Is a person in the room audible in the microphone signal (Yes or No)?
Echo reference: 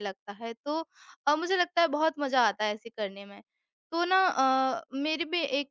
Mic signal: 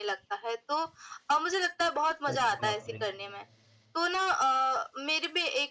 Yes